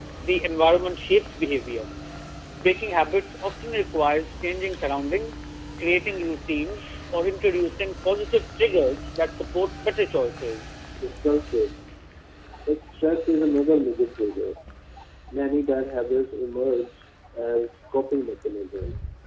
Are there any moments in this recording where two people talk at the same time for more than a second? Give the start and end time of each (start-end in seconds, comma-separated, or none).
none